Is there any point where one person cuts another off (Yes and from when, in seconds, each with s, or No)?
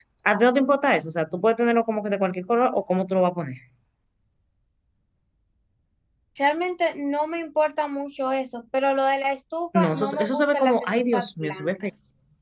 Yes, from 9.7 s